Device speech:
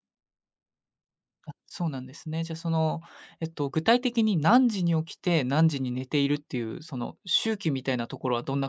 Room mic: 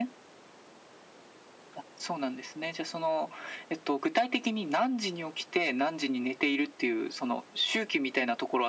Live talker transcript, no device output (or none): none